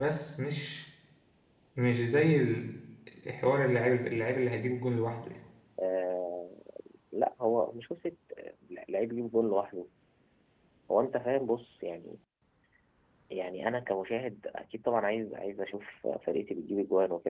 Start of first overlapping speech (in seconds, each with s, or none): none